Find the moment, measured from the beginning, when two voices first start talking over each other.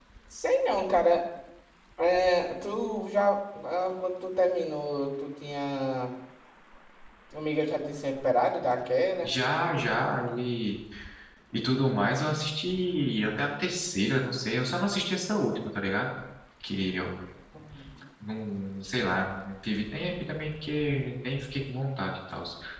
none

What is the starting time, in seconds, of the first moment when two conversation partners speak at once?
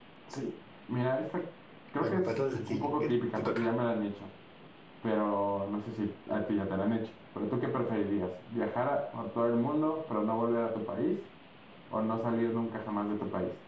2.0 s

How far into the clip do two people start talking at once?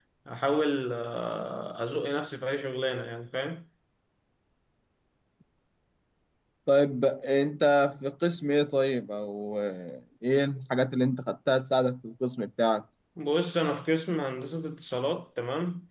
none

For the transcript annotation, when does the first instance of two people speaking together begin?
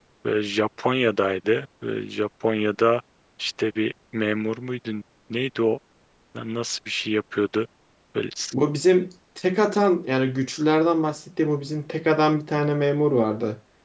none

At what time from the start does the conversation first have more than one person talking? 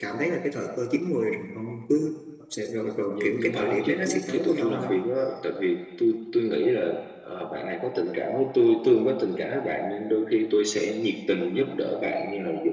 3.1 s

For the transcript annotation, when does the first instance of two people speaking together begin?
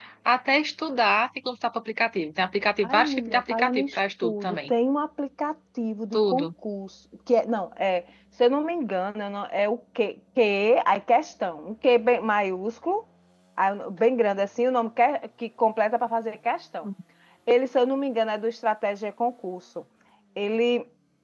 2.8 s

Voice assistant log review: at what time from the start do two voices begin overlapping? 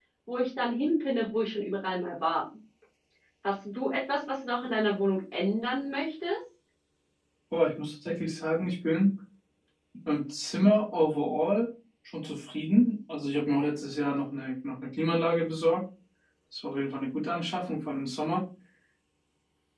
none

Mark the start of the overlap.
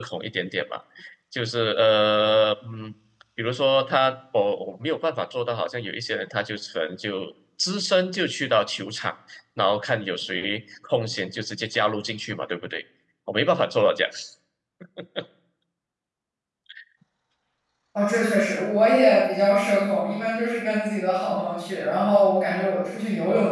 none

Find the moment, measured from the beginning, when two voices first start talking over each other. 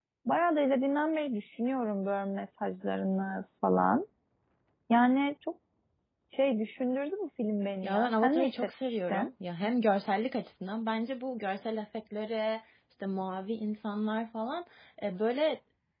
7.8 s

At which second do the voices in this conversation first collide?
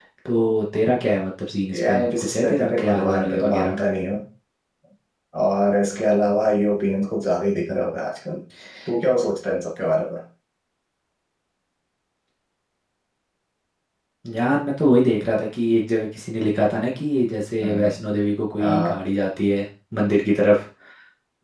1.7 s

